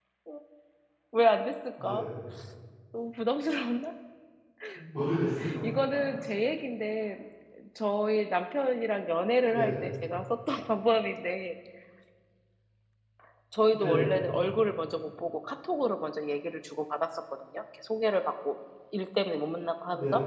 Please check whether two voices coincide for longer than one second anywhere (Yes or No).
No